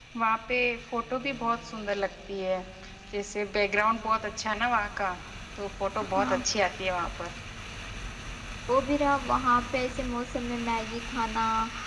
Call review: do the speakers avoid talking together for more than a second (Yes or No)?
Yes